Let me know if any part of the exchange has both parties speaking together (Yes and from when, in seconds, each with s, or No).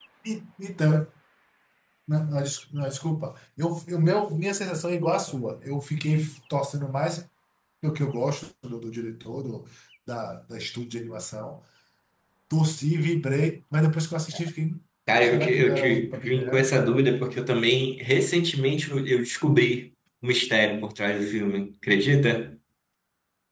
Yes, from 15.2 s